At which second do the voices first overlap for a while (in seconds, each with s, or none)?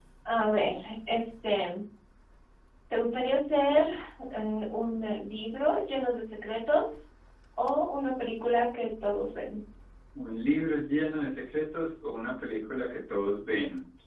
none